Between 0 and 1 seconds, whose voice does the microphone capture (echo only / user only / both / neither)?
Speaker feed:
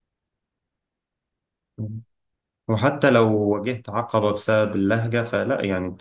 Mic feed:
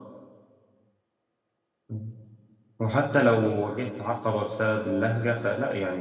neither